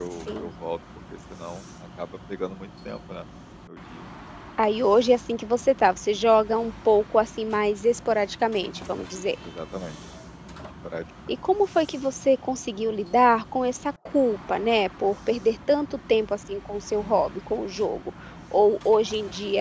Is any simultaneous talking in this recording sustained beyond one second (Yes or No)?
No